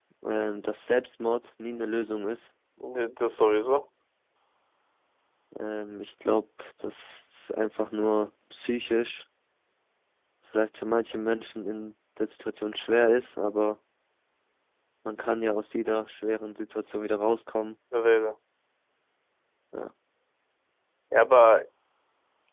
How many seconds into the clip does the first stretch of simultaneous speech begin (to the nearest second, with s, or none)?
none